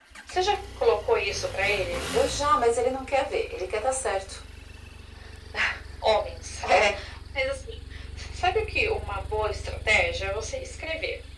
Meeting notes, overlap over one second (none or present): none